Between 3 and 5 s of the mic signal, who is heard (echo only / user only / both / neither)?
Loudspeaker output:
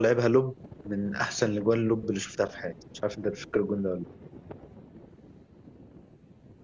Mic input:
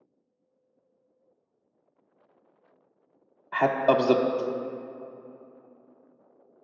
user only